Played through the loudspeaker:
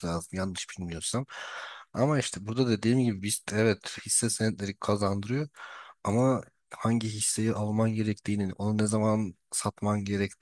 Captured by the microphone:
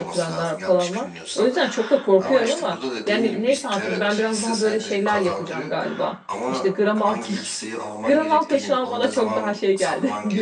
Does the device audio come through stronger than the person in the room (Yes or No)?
No